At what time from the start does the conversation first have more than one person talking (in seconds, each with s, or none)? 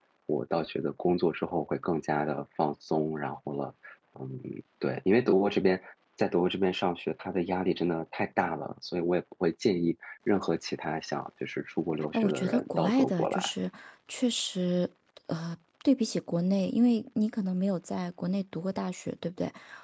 12.1 s